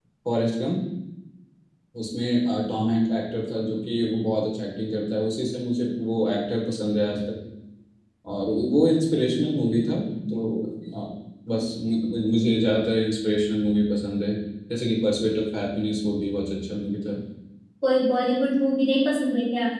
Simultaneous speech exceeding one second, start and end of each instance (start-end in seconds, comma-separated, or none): none